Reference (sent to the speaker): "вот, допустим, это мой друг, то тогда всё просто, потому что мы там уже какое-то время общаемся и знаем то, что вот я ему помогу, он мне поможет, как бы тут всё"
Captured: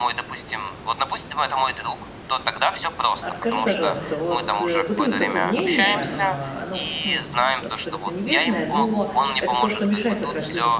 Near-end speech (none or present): present